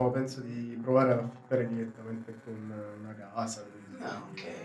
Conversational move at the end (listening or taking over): listening